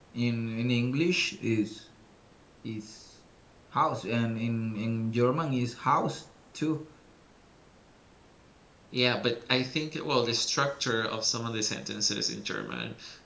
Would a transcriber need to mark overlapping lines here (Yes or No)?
No